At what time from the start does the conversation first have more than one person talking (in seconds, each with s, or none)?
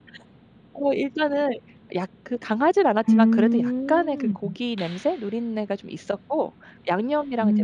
3.1 s